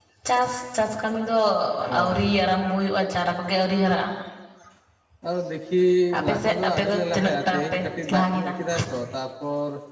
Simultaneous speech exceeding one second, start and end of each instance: 6.2-8.5

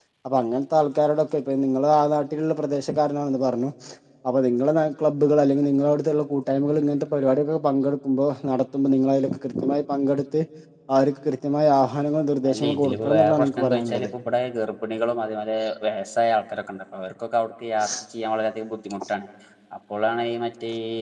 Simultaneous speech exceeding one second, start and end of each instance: 12.5-14.1

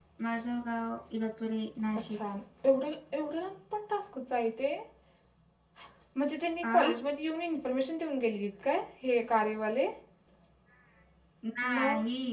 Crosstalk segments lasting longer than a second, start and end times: none

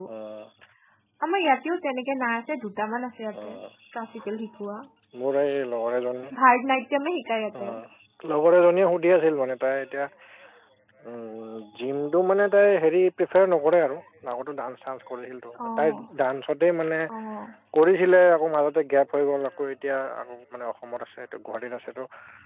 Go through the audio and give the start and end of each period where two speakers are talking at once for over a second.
none

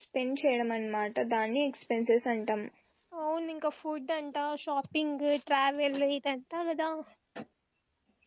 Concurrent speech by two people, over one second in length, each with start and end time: none

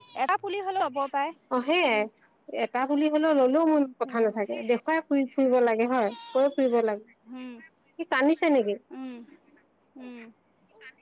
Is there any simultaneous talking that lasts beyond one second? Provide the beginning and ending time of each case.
none

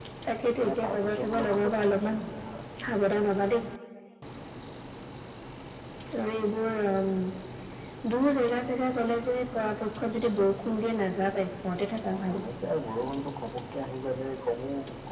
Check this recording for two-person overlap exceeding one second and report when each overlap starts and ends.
0.7-2.2

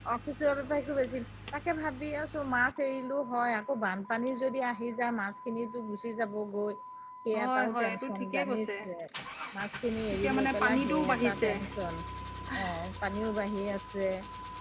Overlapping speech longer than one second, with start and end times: 7.4-8.7, 10.1-11.5

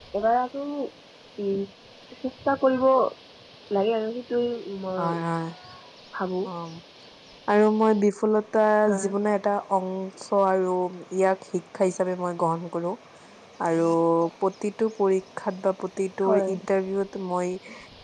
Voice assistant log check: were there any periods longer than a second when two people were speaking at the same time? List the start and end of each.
none

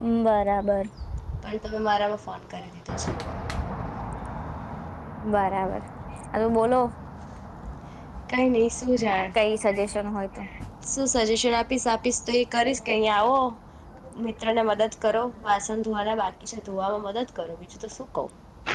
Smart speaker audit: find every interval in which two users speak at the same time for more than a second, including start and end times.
none

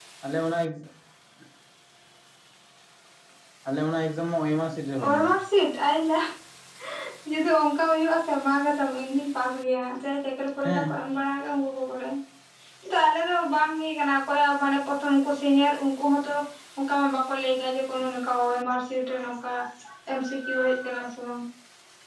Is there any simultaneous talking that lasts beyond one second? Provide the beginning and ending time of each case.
none

